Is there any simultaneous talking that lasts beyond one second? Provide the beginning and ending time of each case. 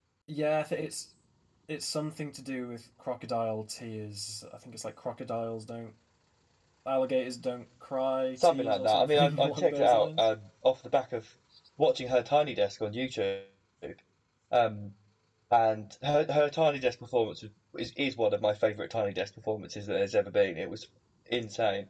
8.4-10.3

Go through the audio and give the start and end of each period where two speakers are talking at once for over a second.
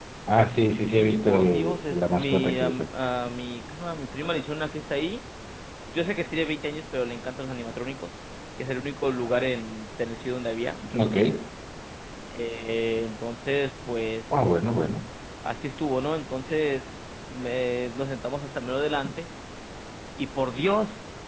0.9-2.9

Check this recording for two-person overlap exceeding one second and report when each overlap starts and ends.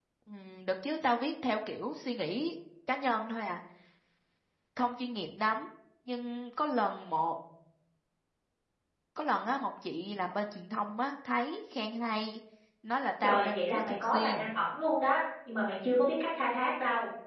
13.2-14.5

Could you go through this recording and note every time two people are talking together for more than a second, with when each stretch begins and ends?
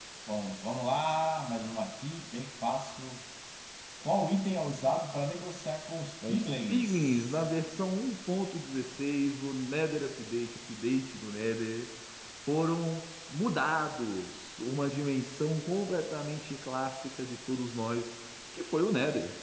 6.3-7.5

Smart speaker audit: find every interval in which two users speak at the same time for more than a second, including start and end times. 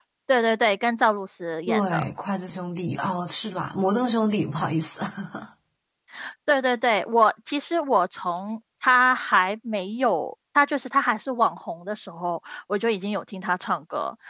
none

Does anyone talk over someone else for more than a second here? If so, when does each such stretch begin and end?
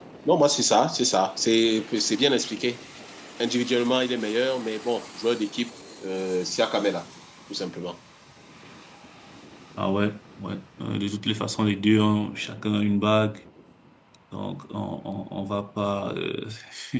none

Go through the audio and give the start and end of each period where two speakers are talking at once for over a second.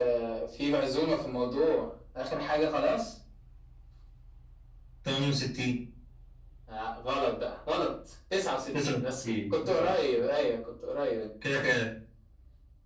8.7-10.2

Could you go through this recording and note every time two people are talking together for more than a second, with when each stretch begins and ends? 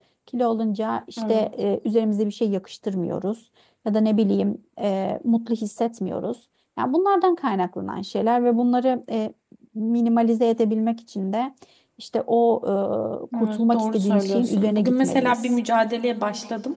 13.4-15.6

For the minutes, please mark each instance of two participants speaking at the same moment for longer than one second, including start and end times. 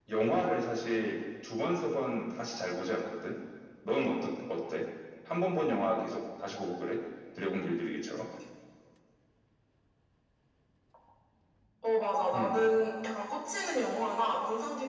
none

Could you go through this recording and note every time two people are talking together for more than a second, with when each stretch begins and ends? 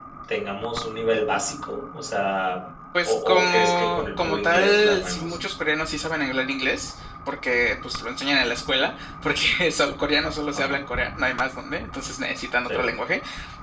3.0-5.4

